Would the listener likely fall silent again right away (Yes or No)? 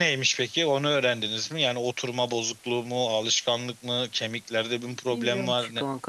No